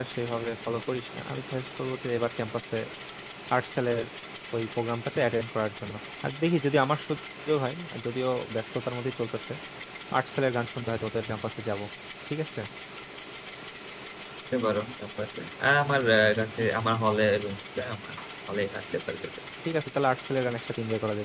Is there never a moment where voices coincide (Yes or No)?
Yes